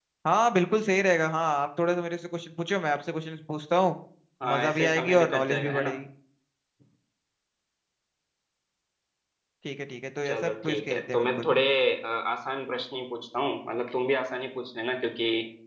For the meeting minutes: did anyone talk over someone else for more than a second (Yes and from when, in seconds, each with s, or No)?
Yes, from 4.5 s